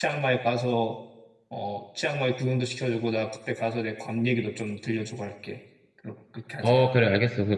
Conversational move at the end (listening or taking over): taking over